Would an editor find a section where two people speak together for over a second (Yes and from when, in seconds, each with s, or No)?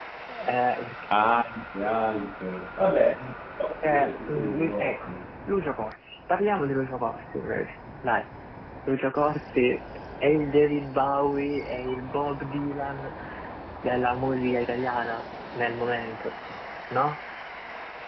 Yes, from 3.8 s